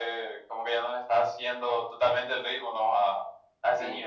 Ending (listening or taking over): taking over